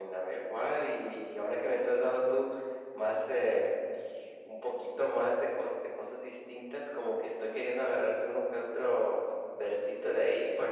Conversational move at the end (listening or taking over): listening